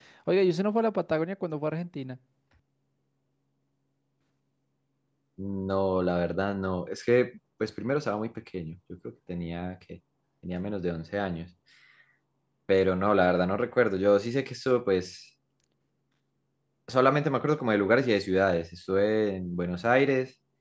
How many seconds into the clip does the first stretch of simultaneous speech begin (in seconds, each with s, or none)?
none